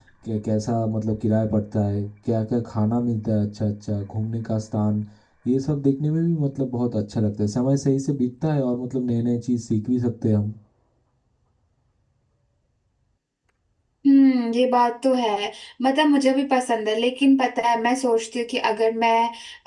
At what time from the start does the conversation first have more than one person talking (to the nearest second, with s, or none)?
none